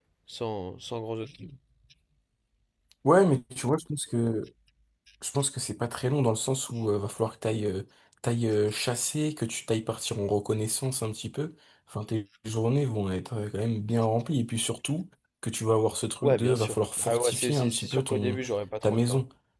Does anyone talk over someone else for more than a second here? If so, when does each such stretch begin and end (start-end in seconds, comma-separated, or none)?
16.2-18.4